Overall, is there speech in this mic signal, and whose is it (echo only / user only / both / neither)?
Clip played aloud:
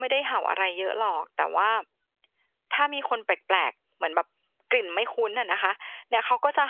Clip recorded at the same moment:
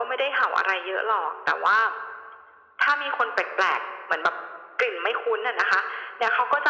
echo only